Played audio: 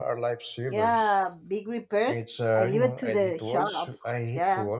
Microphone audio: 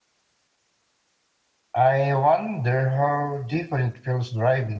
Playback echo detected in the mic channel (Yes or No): No